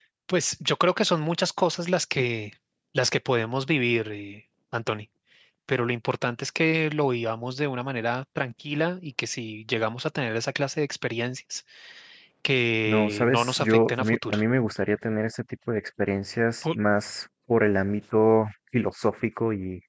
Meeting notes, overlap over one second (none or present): present